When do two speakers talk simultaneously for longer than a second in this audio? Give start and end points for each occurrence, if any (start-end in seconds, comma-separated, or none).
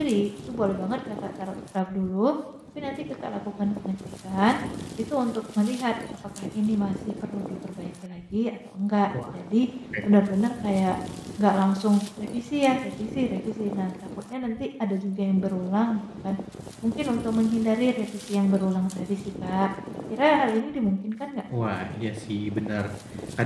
none